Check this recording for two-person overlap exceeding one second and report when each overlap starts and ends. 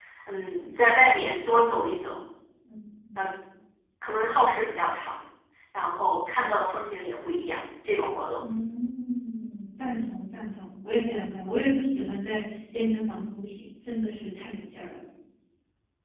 none

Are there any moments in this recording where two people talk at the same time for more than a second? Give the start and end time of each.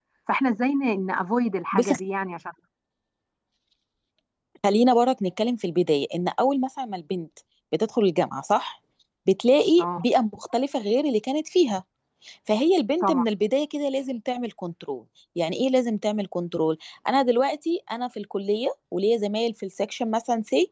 none

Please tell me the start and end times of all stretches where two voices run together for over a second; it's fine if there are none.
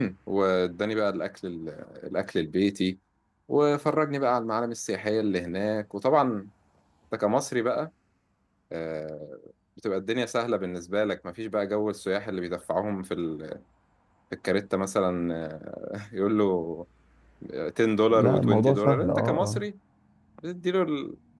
18.1-19.6

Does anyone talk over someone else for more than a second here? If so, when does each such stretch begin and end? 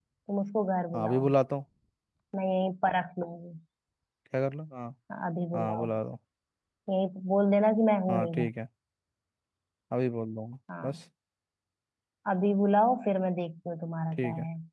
none

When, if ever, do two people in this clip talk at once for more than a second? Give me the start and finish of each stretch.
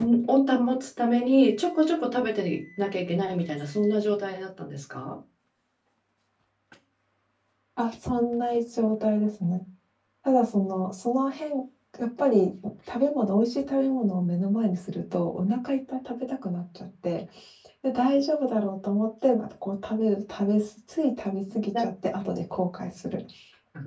none

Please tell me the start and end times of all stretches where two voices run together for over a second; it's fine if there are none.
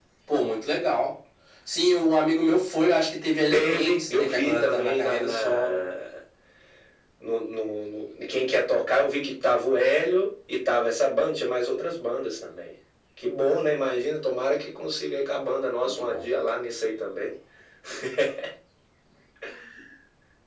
3.5-5.8

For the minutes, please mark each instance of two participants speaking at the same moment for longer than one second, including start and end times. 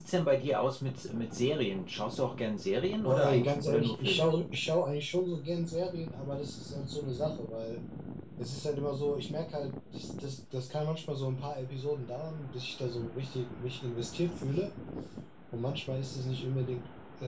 3.0-4.3

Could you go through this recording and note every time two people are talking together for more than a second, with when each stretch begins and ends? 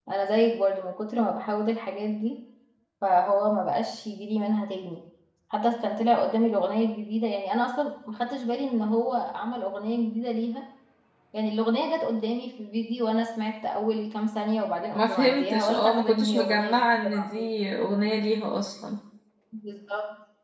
15.0-17.4

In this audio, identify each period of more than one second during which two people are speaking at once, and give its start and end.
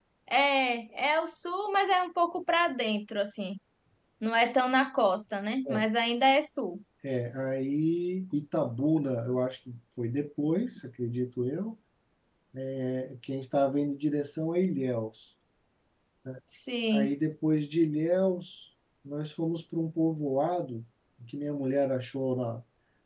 none

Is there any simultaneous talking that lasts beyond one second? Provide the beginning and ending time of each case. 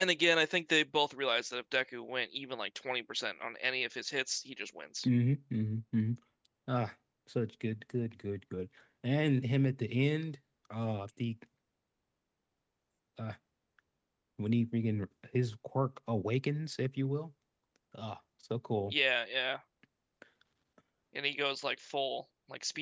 none

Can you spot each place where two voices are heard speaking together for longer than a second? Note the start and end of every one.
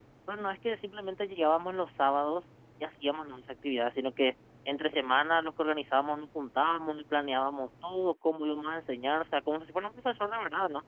none

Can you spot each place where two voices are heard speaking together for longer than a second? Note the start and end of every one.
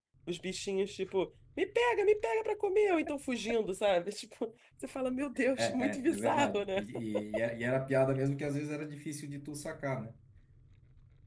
5.6-6.8

